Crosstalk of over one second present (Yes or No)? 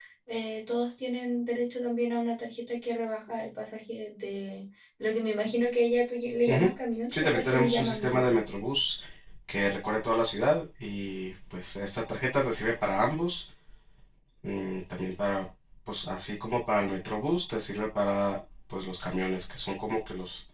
Yes